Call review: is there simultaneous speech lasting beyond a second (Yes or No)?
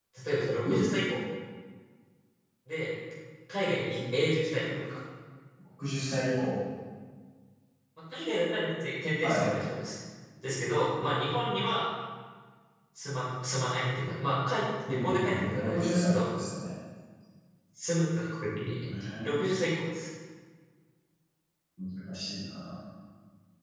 Yes